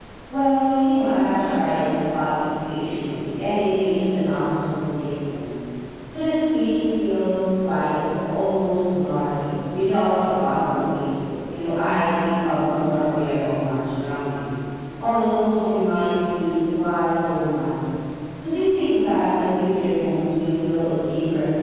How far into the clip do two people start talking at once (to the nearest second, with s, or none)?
none